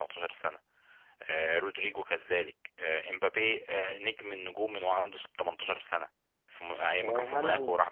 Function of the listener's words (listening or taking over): taking over